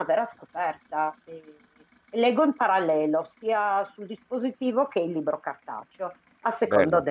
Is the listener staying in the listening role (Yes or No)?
Yes